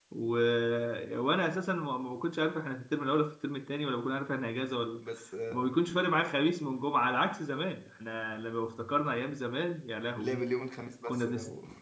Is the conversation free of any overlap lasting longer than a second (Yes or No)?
Yes